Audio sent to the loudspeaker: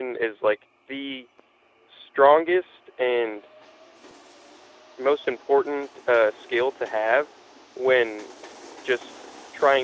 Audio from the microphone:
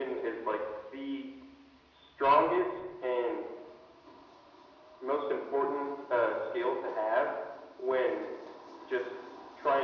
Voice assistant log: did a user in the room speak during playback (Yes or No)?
No